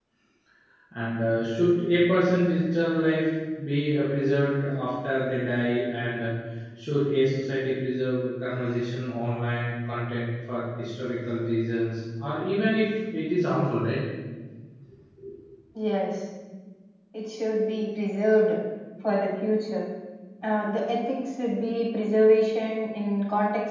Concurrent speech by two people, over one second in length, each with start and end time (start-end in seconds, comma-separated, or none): none